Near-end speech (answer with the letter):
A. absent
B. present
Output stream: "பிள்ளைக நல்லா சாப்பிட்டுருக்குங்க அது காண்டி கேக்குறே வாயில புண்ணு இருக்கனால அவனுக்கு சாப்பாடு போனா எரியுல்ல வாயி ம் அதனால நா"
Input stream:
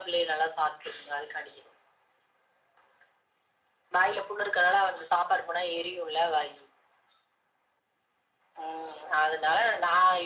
A